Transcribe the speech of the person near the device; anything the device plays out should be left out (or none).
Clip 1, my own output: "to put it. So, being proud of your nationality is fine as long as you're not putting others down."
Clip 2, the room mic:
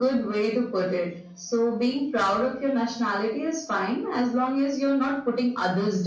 none